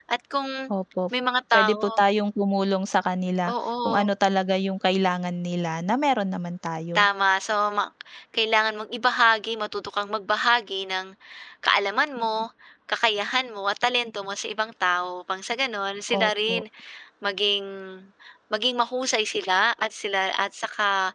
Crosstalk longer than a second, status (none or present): none